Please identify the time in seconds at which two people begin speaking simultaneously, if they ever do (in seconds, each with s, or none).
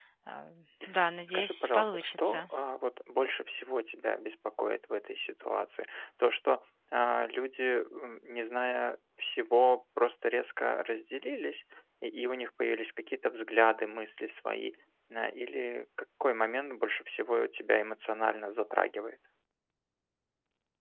1.3 s